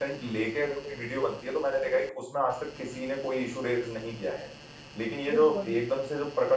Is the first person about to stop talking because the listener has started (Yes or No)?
No